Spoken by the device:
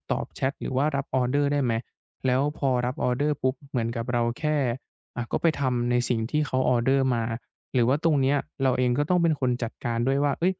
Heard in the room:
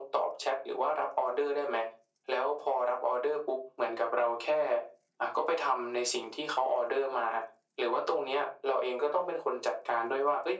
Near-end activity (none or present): none